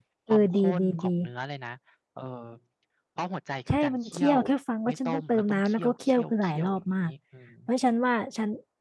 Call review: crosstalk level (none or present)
present